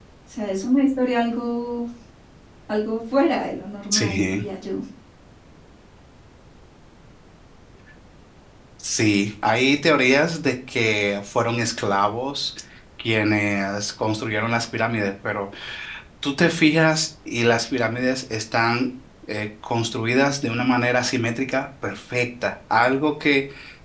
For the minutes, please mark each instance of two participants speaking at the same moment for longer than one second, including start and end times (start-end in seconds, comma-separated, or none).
none